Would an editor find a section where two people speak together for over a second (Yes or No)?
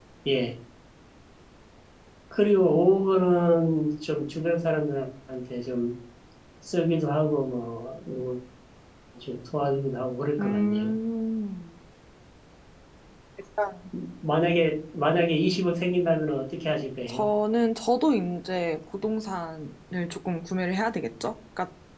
No